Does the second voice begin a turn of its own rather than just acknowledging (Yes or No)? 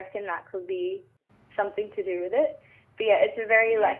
No